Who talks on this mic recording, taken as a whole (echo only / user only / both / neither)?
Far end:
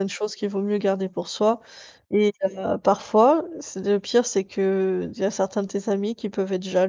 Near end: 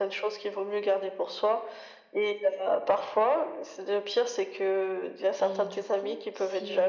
both